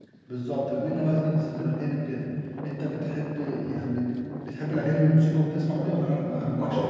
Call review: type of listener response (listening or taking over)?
taking over